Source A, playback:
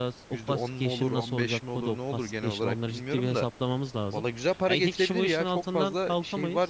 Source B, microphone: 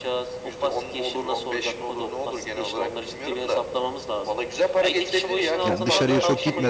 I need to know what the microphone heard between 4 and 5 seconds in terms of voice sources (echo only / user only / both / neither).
echo only